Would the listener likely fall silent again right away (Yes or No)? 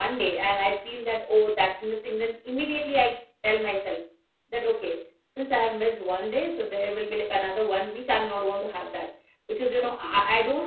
Yes